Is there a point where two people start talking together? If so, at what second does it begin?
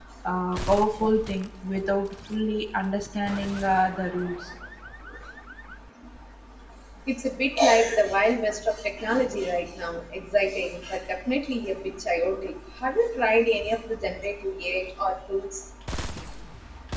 none

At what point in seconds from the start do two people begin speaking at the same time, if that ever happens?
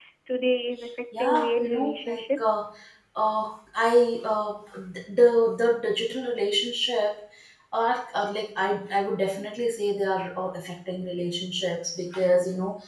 1 s

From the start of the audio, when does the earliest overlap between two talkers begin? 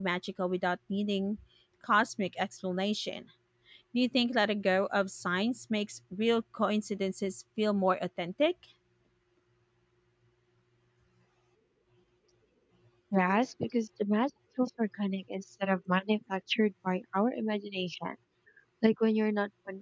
none

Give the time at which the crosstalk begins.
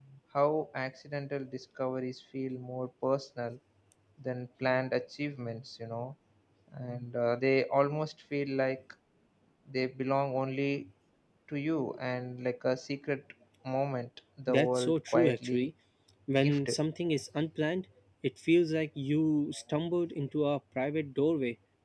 14 s

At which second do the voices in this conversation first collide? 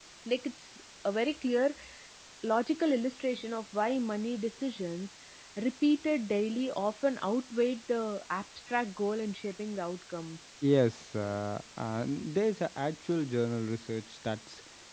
none

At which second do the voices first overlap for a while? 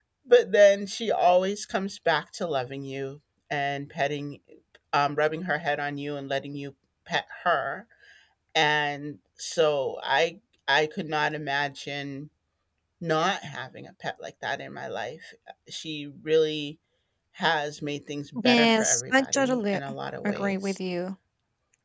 18 s

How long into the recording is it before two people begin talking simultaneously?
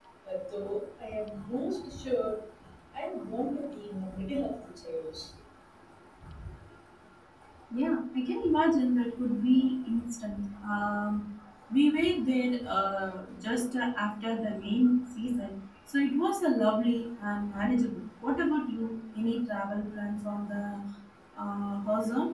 none

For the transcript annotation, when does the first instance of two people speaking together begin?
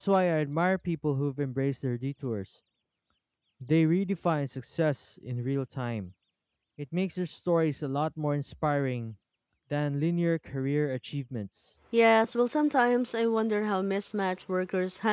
none

